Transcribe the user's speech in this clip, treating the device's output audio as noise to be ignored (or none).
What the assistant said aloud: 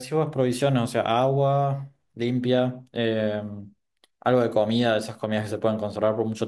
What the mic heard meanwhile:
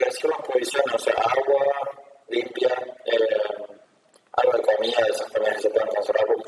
none